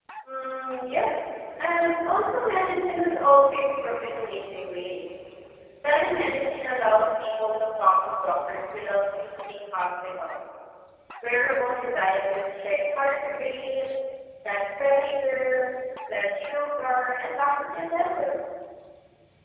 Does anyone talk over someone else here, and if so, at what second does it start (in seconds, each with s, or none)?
none